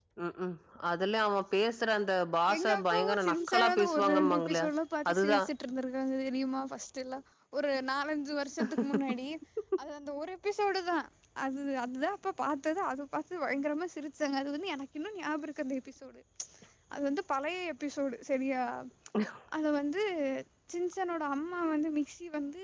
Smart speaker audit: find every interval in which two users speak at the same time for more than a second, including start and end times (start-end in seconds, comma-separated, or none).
2.5-4.5